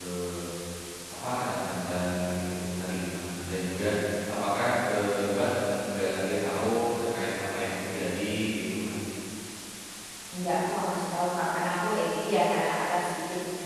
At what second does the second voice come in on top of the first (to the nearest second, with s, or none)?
none